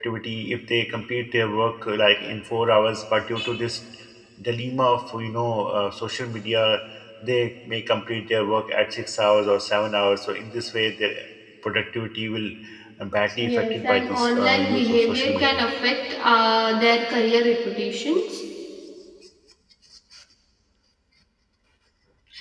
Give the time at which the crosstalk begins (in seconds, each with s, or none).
13.4 s